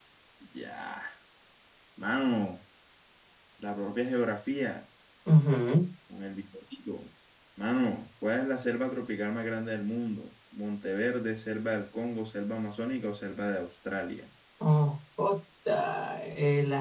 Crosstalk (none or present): none